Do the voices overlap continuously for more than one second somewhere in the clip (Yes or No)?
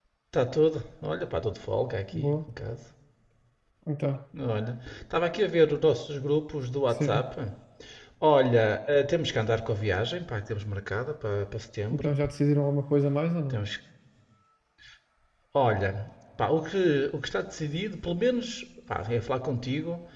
No